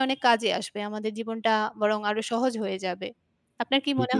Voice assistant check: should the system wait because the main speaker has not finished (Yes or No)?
No